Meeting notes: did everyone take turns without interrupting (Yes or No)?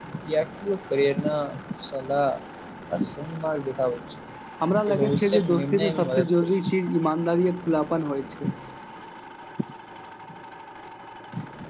No